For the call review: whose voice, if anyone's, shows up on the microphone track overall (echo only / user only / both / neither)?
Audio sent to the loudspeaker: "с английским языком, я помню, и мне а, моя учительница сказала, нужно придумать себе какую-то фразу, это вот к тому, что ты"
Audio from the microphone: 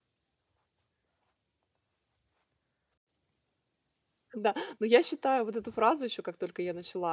user only